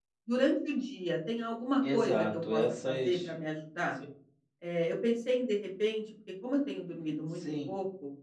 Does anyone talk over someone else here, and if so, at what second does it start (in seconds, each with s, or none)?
1.9 s